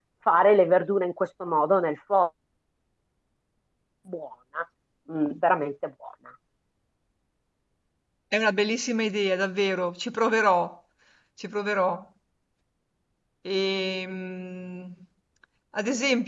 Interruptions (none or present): none